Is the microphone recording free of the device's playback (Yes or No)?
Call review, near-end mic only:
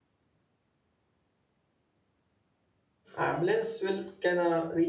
Yes